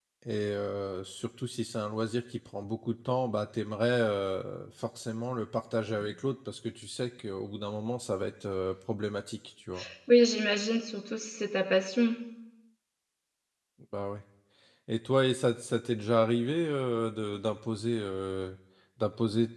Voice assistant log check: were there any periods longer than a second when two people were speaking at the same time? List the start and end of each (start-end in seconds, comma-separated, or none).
none